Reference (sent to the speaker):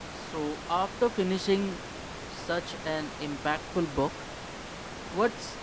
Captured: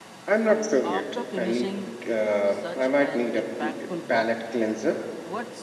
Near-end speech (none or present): present